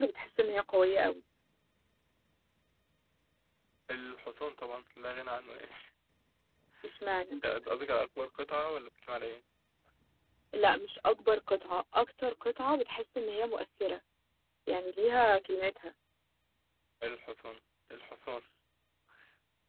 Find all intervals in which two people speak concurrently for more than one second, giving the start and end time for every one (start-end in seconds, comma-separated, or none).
none